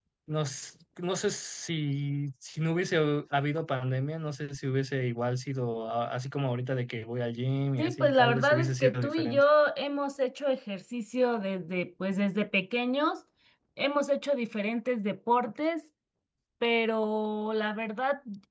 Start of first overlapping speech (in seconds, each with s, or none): 7.8 s